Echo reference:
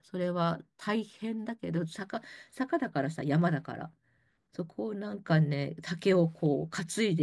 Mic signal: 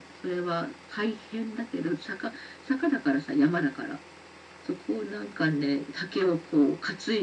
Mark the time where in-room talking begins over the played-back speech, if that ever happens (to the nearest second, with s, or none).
none